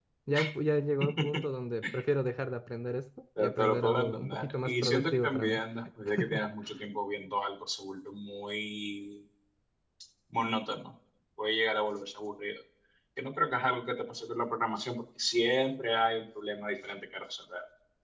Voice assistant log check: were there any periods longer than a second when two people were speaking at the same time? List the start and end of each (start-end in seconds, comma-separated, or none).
3.4-5.6